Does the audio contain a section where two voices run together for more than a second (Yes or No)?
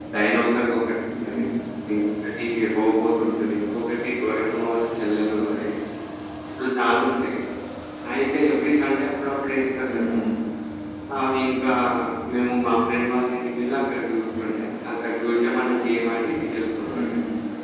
No